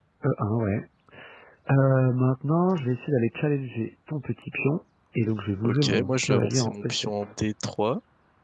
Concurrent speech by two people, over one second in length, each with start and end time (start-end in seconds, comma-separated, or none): 5.6-7.1